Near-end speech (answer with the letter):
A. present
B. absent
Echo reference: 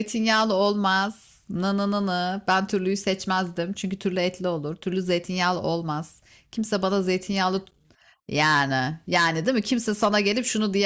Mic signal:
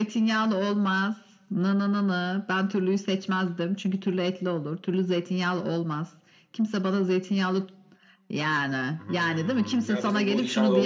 A